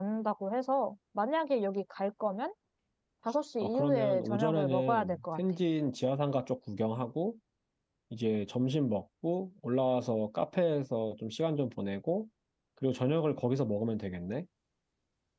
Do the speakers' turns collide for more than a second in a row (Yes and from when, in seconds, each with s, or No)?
Yes, from 3.6 s